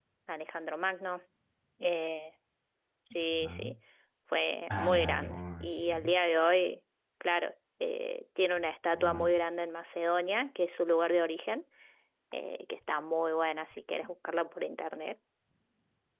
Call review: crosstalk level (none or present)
present